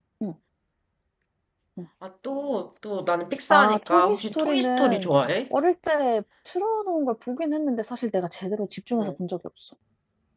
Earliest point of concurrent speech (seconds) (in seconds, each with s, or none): 3.5 s